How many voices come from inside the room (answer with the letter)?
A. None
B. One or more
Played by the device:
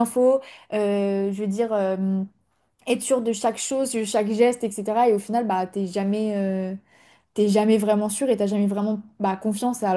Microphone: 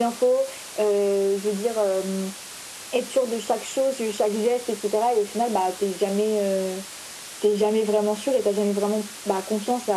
A